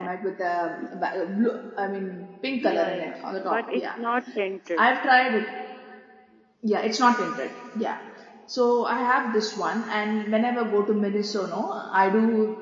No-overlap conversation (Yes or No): No